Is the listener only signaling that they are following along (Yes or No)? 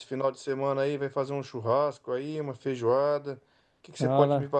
Yes